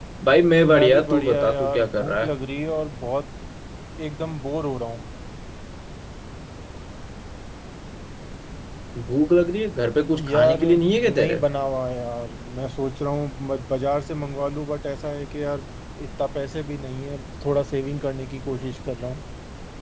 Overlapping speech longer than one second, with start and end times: 0.6-2.3, 10.2-11.4

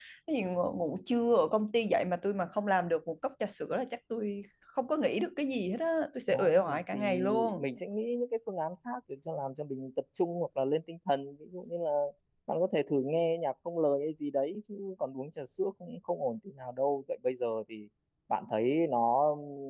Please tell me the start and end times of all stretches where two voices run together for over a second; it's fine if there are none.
6.3-7.6

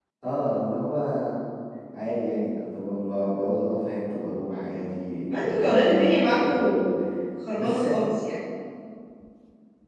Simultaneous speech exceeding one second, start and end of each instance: 5.3-6.9

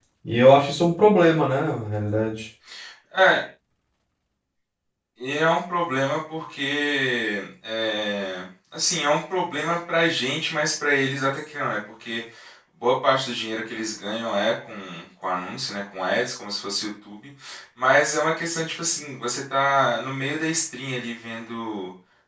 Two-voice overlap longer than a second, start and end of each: none

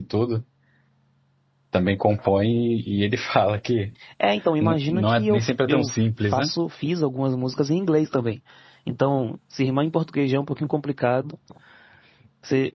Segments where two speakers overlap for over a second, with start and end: 4.6-5.9

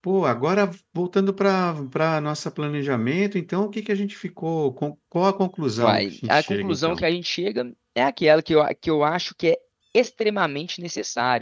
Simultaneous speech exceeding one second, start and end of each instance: 5.8-7.0

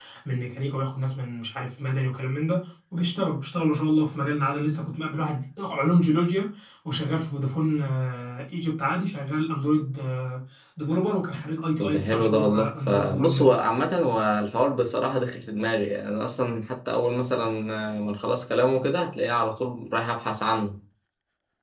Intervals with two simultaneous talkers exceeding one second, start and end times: 11.8-13.5

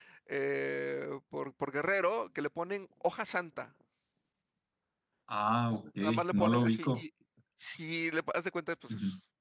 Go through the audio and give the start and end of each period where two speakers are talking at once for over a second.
5.7-7.0

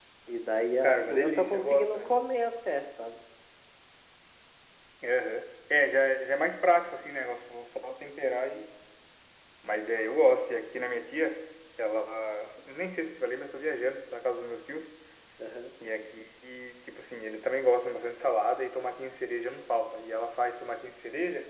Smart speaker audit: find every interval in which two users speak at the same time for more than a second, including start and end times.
0.8-2.2

